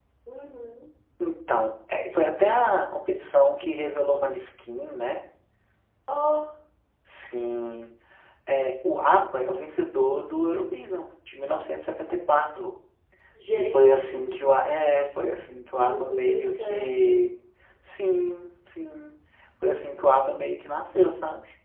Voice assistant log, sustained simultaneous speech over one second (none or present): present